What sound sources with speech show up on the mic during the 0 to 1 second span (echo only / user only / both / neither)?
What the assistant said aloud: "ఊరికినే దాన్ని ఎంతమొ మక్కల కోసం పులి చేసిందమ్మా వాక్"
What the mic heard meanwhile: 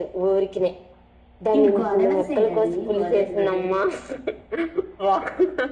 echo only